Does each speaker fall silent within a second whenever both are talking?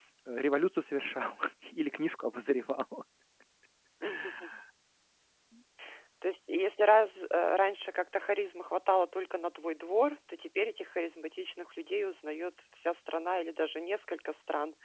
Yes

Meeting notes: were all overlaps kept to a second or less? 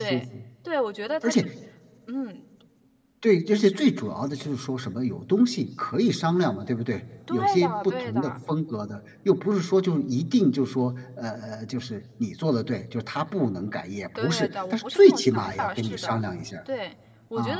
No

